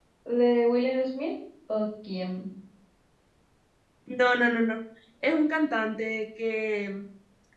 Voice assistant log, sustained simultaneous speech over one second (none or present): none